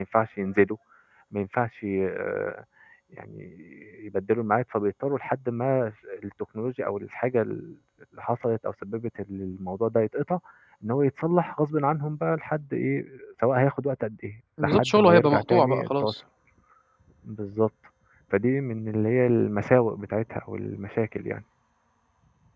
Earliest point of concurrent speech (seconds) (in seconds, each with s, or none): 14.6 s